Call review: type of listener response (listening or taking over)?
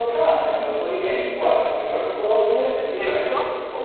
listening